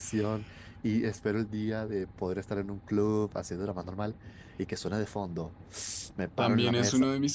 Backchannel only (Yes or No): No